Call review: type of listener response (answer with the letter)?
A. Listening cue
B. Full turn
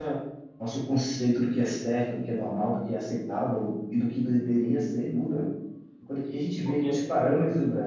A